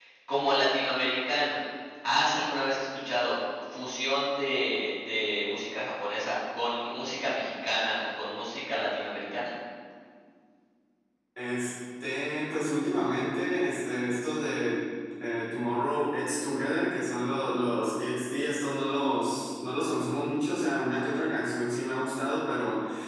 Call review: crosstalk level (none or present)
none